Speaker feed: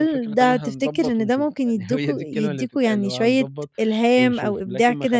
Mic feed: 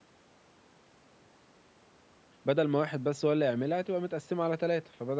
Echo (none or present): none